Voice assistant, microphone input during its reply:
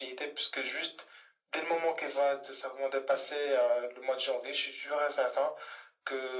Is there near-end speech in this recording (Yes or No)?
No